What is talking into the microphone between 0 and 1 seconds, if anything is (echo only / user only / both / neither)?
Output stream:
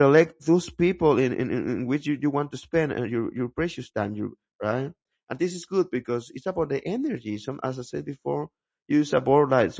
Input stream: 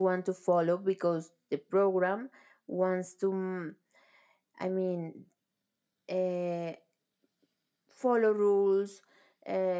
user only